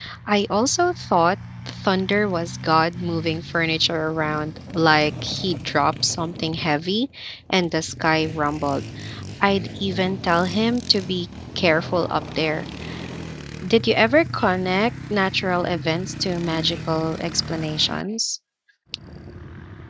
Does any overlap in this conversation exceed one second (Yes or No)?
No